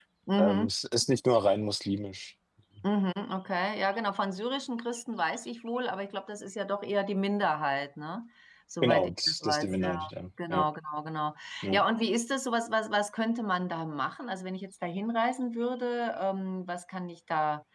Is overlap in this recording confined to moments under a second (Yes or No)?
No